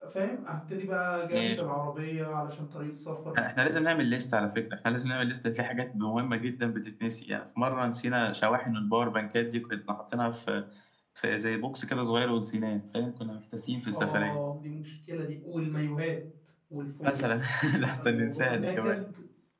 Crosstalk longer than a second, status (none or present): present